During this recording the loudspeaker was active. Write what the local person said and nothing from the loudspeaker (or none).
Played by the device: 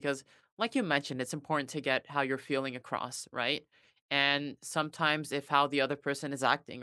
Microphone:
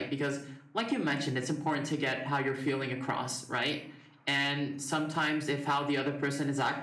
none